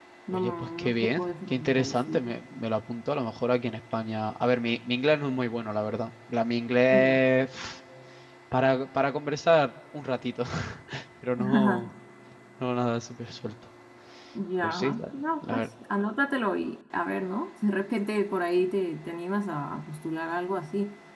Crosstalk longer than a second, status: present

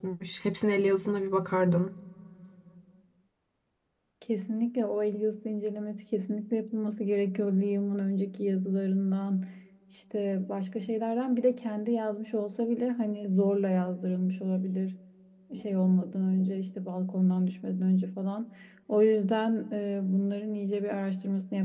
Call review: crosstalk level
none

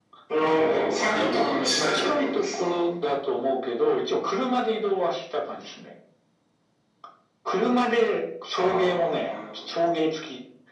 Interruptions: present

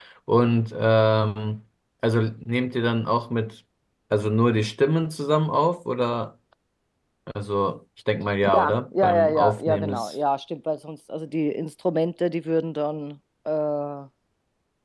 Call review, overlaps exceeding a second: present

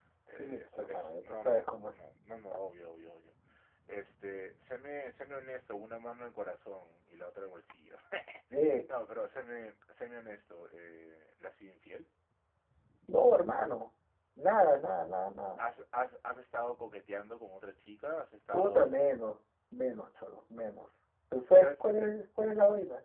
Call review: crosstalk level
present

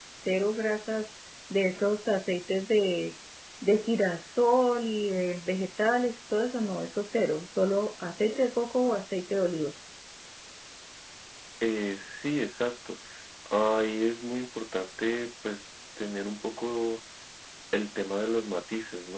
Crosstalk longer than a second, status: none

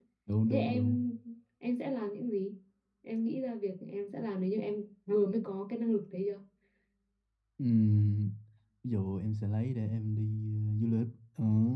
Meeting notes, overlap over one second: none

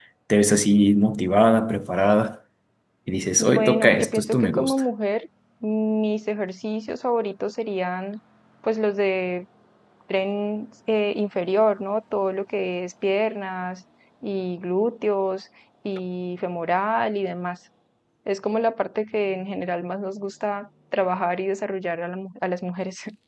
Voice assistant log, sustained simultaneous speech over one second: present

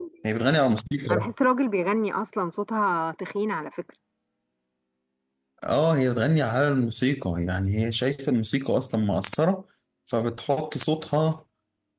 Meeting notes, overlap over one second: none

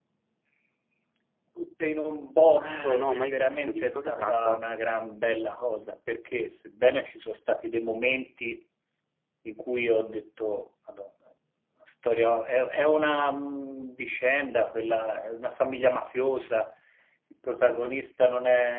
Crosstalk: present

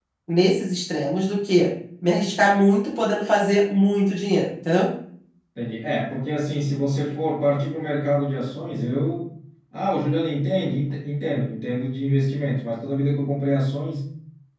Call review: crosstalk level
none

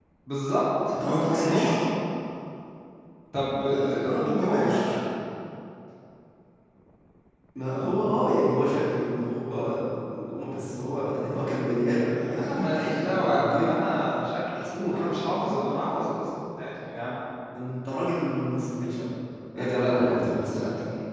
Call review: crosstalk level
present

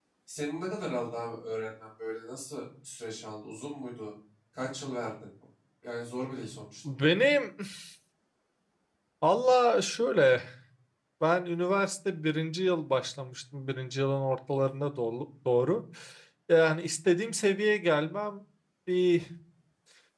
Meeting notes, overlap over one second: none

